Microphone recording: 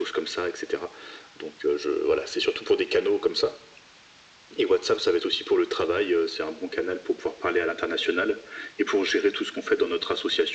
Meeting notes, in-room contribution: none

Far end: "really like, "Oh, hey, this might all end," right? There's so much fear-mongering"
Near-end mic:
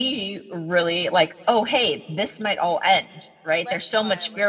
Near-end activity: present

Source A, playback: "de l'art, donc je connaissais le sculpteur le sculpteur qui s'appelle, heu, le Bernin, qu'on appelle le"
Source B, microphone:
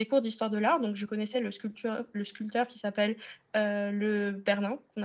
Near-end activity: none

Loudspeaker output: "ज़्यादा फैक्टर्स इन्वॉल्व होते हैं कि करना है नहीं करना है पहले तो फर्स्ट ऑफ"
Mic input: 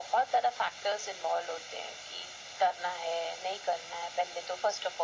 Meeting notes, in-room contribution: none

